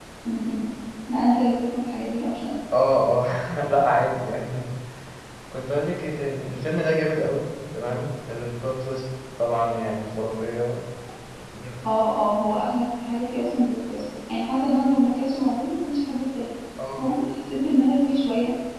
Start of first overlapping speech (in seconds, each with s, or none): none